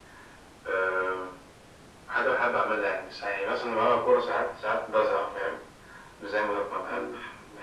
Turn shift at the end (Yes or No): Yes